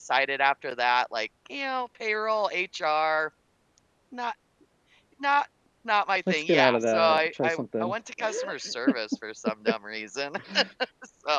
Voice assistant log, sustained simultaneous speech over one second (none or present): present